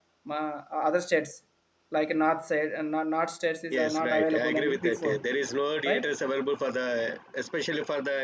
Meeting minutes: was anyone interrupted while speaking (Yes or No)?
Yes